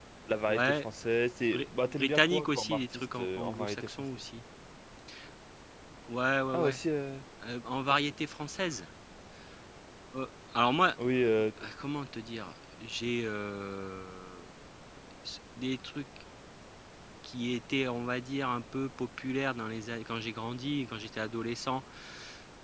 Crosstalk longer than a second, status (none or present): present